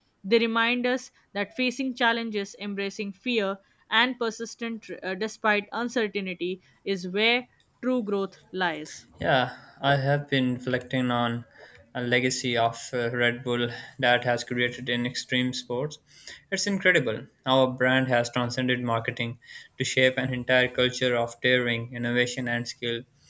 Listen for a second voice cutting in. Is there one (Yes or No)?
No